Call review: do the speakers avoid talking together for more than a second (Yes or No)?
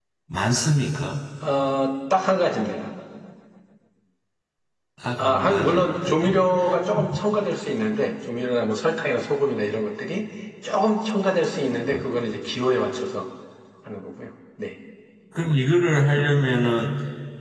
No